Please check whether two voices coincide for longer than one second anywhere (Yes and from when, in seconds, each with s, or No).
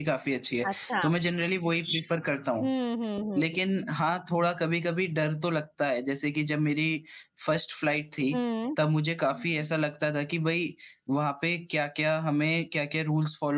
No